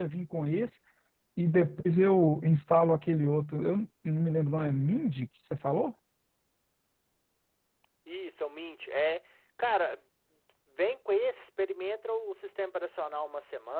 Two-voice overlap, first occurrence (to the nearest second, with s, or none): none